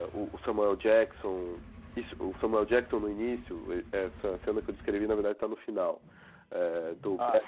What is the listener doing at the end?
listening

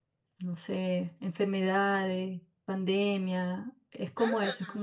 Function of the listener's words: listening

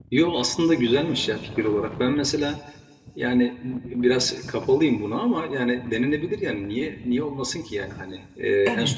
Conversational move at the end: listening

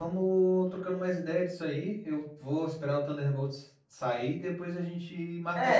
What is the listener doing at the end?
taking over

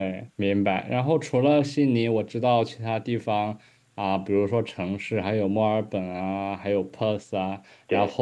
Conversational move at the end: listening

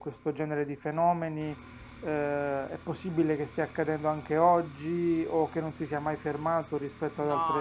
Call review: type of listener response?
taking over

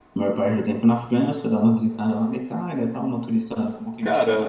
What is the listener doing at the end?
taking over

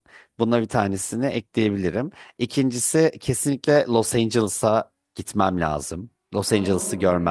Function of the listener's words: taking over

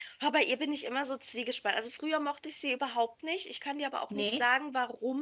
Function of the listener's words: listening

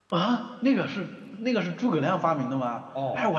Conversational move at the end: taking over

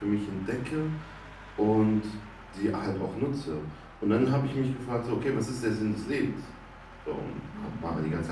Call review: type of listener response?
listening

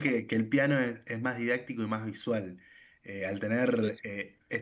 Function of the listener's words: listening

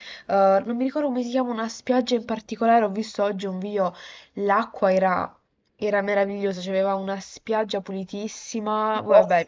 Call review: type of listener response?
listening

